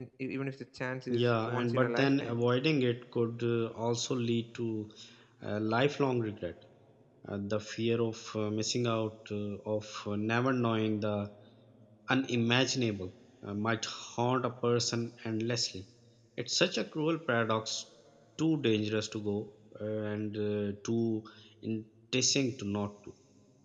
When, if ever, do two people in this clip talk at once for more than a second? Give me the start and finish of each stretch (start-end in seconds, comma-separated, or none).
1.1-2.4